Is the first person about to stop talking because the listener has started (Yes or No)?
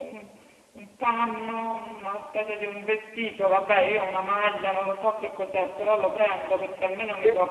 No